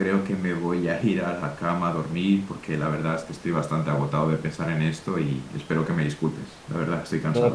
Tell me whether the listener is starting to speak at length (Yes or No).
Yes